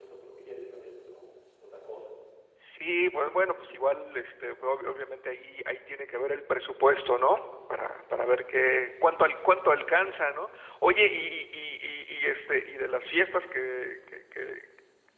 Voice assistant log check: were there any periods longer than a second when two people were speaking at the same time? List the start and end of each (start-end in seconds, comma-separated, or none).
none